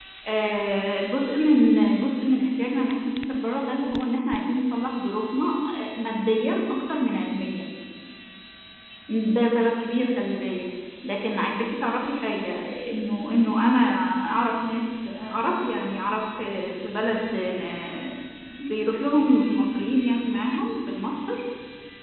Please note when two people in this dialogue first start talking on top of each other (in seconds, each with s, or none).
none